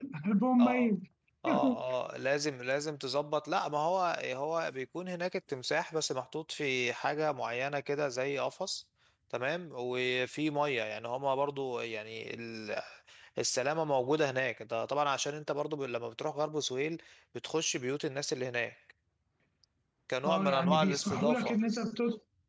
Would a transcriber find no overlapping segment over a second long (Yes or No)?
No